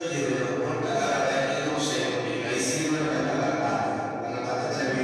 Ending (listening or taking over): listening